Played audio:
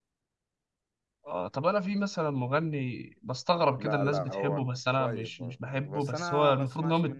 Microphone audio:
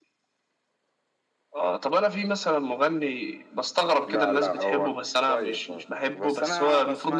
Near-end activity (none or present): none